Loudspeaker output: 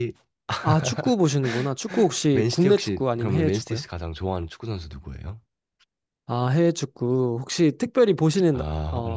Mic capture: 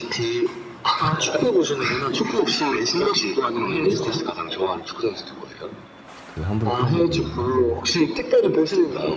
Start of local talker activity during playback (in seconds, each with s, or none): 6.2 s